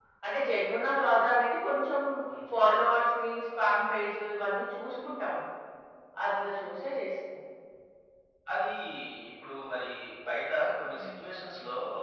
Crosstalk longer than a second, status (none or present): none